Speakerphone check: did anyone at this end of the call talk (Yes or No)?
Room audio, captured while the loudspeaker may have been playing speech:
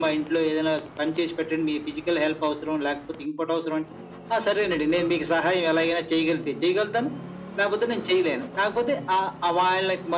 No